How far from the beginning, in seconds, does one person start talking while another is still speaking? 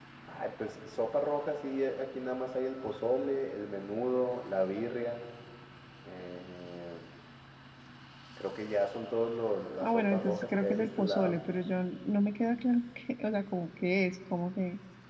9.8 s

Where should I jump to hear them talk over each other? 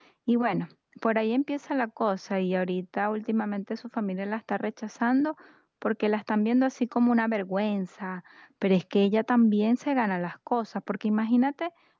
none

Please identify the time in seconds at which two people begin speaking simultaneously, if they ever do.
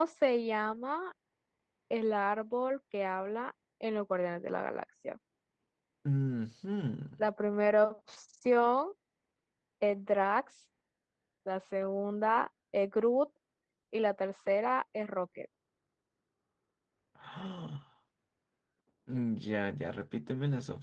none

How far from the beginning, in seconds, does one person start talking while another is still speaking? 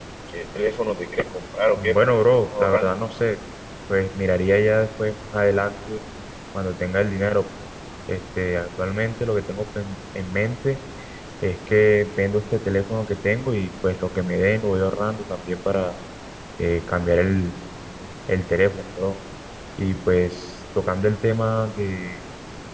1.7 s

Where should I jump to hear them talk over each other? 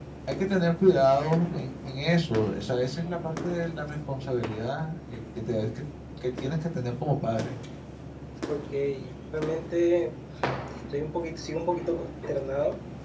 none

